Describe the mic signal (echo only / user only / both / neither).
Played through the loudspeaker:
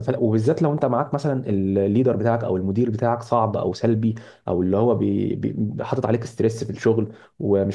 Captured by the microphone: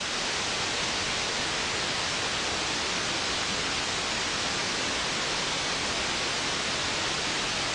neither